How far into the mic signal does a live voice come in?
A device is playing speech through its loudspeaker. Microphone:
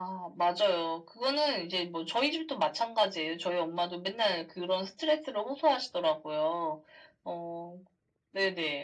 none

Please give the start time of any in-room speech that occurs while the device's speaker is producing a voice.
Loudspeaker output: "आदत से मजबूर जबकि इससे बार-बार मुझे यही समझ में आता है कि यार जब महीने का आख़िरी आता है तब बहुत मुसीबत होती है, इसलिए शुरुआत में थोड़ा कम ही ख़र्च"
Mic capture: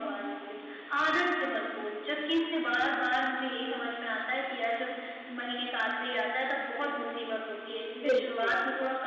7.9 s

